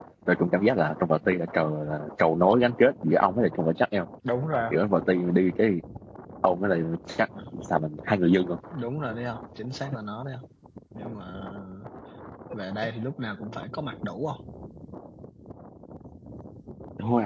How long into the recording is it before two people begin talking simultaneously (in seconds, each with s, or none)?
none